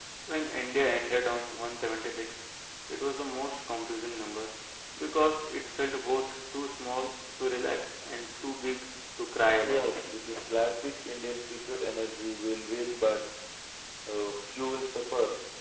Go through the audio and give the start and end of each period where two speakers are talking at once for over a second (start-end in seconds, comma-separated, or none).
none